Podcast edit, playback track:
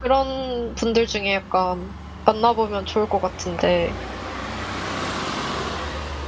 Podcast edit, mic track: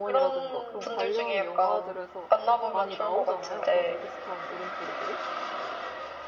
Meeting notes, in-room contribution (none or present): present